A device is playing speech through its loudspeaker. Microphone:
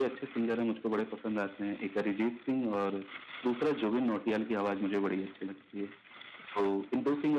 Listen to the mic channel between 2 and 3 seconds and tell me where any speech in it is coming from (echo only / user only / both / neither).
echo only